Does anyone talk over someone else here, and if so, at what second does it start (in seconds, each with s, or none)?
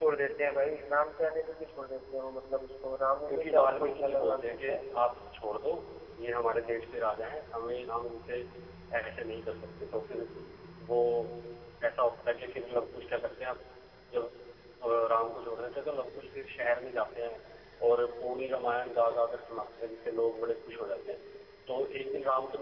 3.3 s